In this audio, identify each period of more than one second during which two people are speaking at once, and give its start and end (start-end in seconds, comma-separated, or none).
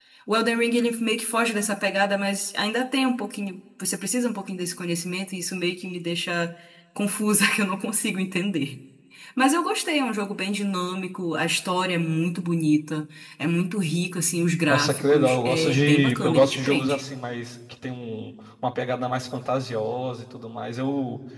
14.6-17.0